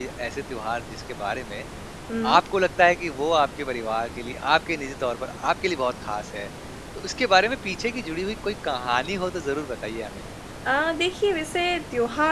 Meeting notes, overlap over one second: none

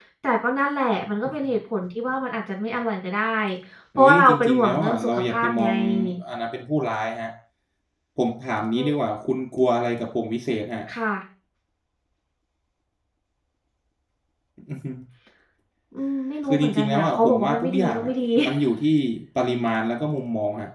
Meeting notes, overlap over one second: present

